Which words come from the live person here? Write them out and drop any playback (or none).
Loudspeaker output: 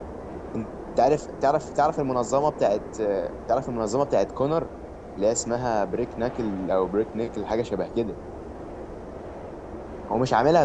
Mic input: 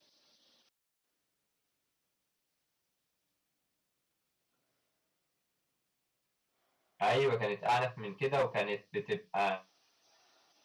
ايوه كانت اعنف من كده وكانت بتبقى